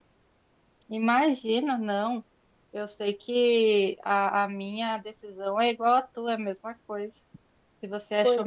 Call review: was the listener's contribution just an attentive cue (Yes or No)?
Yes